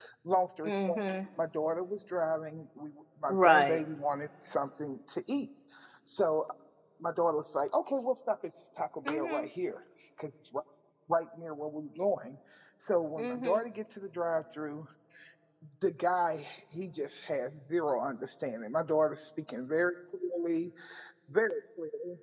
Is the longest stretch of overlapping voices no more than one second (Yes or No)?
Yes